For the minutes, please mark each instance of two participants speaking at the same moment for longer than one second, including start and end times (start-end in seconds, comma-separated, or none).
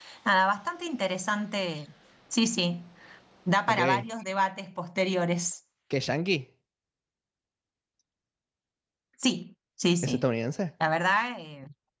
none